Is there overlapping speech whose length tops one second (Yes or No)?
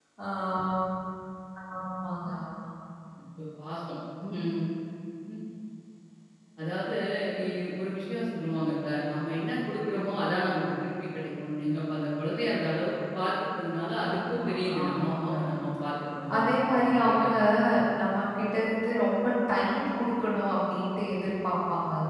Yes